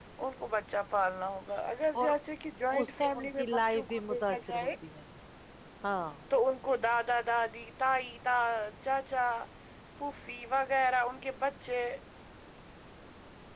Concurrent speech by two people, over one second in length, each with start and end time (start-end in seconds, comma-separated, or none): 2.8-4.7